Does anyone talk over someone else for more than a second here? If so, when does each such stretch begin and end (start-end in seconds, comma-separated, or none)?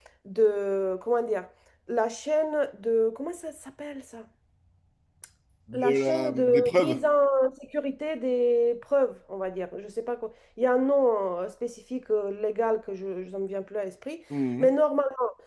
5.7-7.0